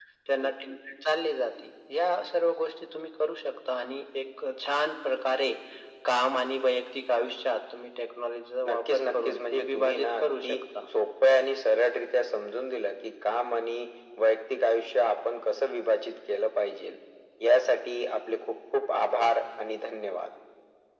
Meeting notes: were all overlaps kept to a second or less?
No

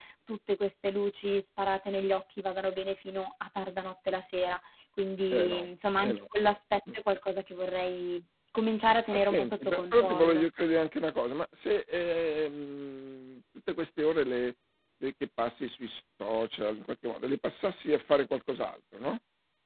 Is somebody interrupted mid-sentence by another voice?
Yes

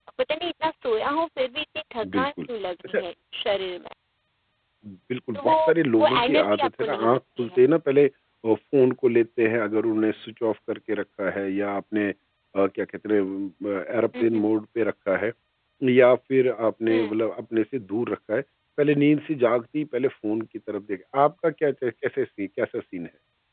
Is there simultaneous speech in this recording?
Yes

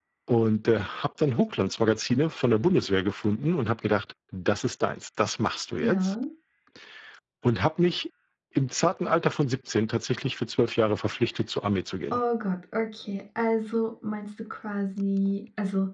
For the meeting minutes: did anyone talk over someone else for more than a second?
No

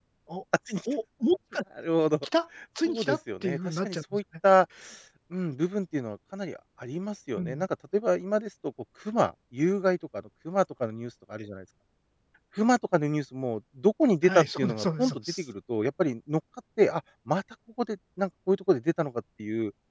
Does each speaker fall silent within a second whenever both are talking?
No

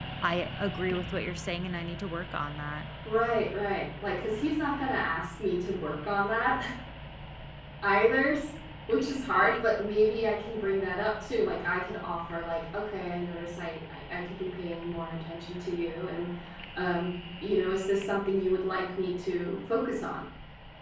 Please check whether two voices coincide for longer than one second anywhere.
No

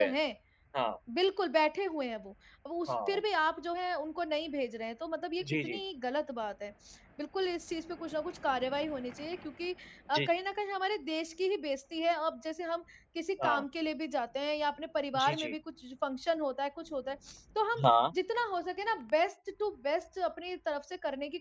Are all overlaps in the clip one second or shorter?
Yes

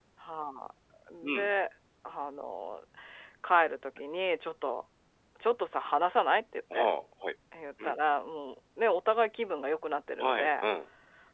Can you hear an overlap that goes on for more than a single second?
No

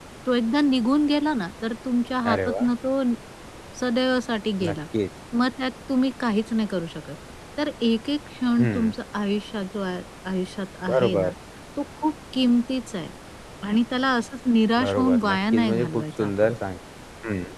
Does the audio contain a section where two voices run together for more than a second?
Yes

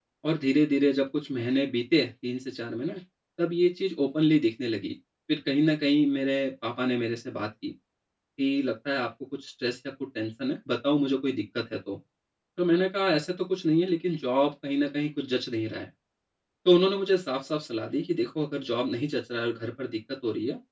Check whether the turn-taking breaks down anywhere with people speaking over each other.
No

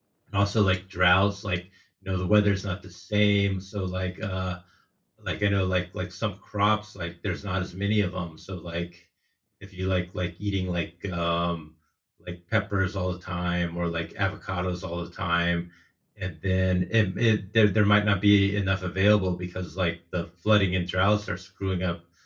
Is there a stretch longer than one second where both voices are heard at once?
No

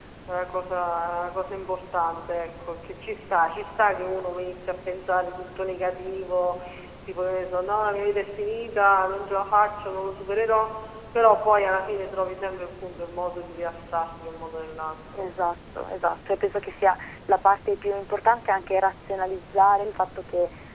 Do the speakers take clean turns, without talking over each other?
Yes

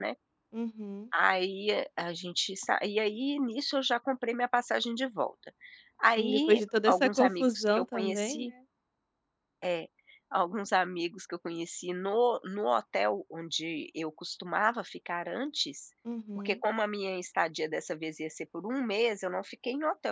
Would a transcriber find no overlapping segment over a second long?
No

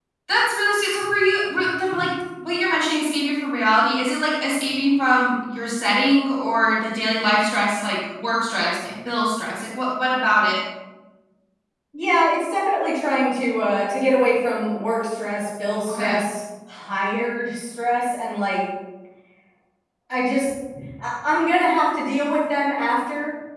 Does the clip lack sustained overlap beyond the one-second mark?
Yes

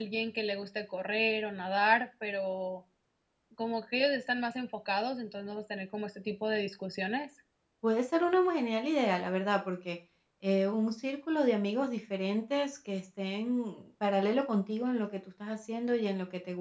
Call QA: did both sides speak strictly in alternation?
Yes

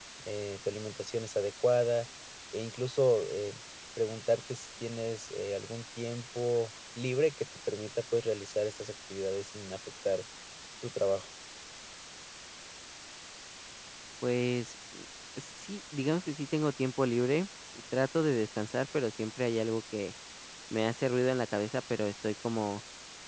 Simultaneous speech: No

